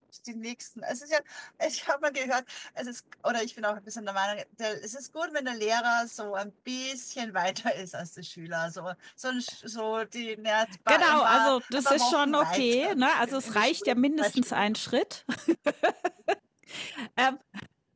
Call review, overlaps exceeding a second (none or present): present